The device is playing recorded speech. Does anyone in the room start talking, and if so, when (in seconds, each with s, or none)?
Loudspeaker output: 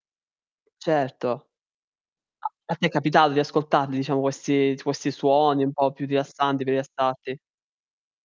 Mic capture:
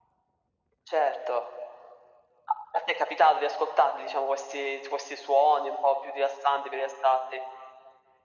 none